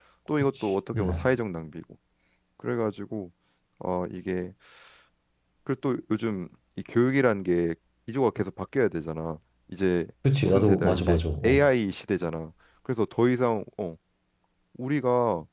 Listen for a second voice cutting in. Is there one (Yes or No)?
Yes